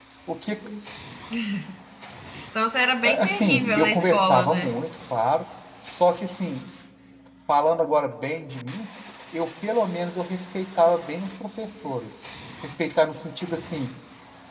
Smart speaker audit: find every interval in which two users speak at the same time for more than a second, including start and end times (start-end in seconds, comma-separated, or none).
3.0-4.7